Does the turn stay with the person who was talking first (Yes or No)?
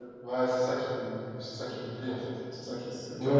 No